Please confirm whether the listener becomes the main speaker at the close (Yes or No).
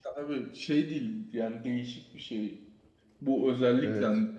No